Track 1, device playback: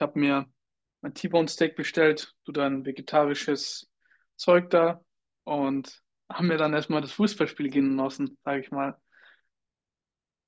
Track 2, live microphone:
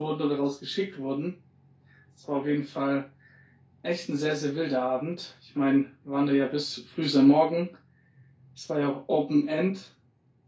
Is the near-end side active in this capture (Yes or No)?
Yes